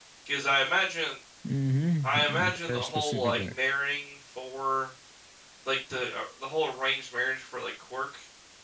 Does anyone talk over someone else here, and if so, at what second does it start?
2 s

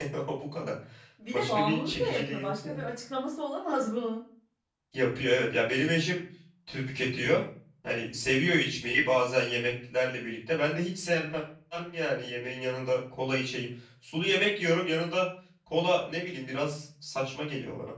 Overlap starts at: 1 s

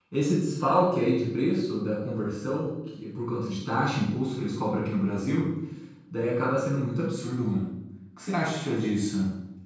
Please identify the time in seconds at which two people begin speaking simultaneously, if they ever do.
none

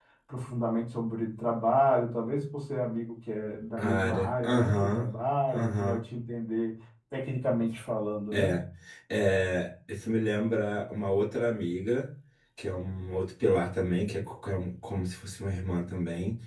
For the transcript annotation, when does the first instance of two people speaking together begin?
4 s

